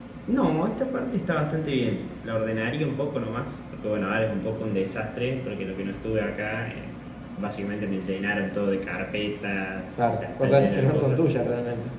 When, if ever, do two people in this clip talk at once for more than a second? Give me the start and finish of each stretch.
10.0-11.2

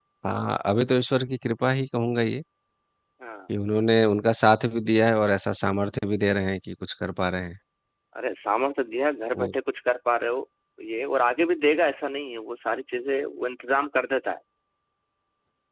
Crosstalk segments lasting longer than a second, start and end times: none

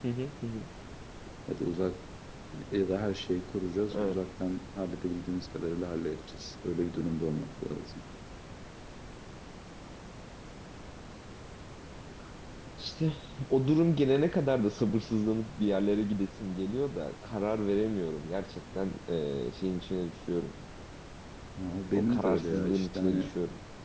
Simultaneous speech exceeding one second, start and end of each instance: 21.9-23.3

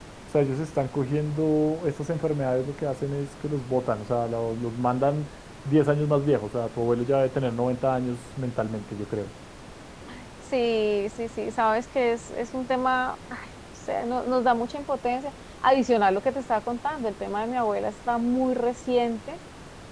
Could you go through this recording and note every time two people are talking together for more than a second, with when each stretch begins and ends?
none

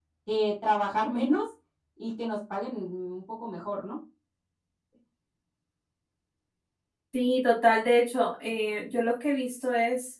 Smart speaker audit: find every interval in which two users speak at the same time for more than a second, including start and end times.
none

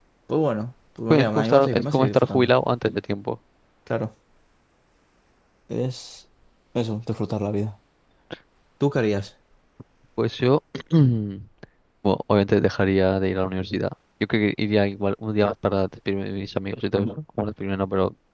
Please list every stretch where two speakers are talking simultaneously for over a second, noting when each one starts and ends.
1.1-2.5

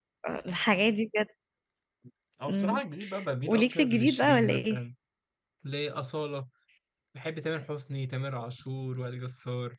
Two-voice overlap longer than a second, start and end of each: 3.5-4.8

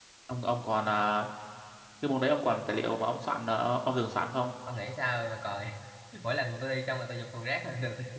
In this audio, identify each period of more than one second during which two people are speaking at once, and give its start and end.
none

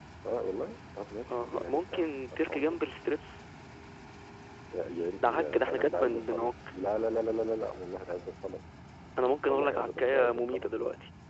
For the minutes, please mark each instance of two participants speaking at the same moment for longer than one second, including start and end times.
1.3-2.8, 5.2-6.5, 9.5-10.7

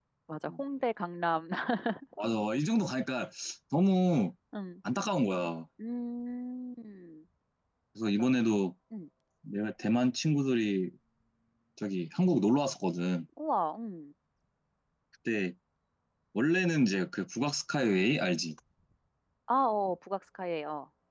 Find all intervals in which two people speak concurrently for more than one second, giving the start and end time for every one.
none

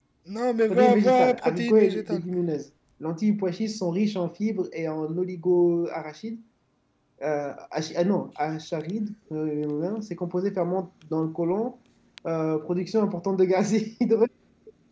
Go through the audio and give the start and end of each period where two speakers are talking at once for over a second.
0.7-2.2

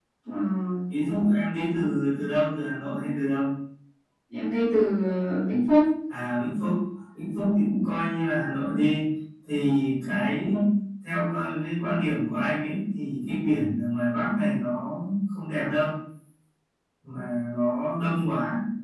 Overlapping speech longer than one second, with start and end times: none

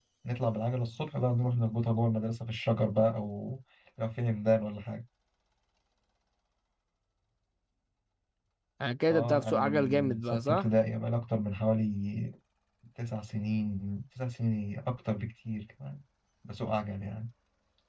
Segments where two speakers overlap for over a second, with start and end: 9.1-10.7

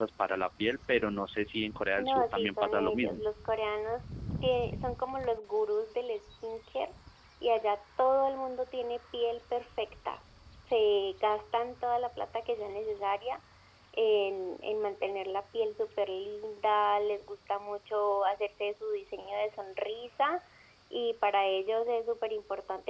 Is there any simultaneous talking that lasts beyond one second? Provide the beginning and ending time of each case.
2.0-3.2

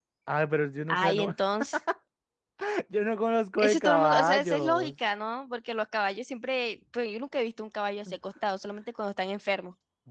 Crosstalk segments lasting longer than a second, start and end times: 3.6-4.9

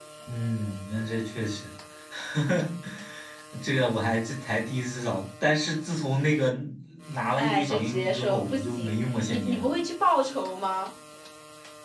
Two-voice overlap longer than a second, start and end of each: 7.3-9.7

